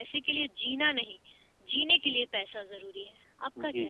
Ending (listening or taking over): taking over